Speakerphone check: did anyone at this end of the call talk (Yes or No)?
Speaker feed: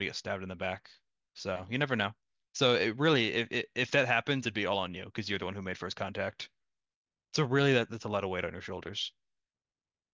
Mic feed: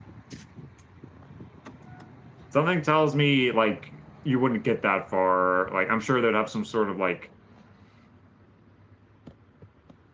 Yes